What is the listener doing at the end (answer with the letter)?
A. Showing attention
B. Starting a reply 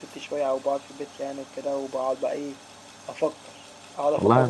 A